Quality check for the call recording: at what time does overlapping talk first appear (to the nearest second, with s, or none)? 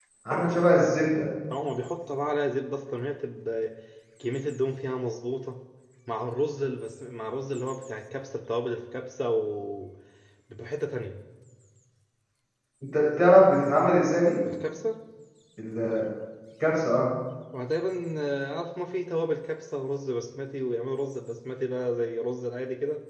none